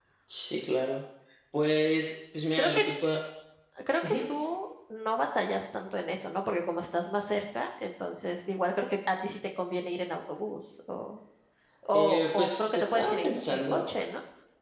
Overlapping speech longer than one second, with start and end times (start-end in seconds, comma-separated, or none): 11.9-13.9